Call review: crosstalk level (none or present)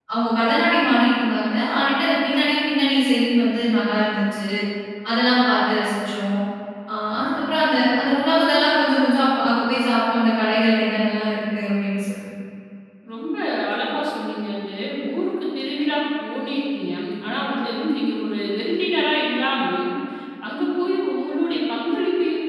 none